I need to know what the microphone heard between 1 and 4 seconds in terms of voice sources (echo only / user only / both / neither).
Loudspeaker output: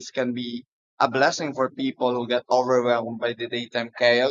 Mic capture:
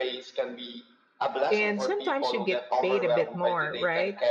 both